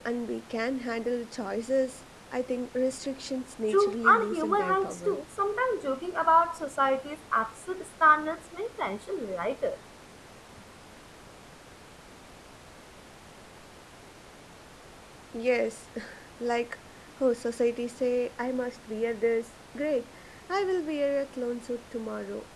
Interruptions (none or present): present